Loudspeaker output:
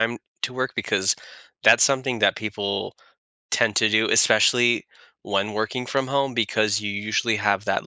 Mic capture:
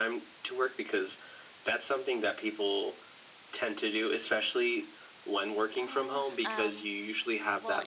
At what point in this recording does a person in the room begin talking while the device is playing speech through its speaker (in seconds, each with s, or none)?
5.8 s